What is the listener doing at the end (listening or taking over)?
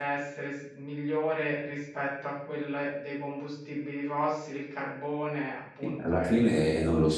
taking over